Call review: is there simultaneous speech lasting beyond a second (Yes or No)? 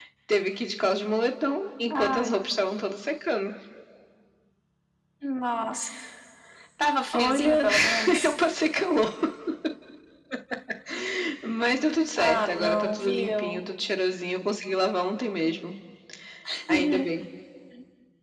Yes